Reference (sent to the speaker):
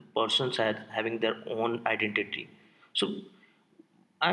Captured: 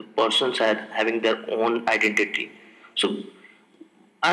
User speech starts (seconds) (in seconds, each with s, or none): none